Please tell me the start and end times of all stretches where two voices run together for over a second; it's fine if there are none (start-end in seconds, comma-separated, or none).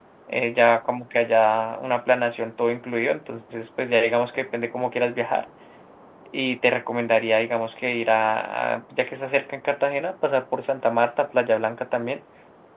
none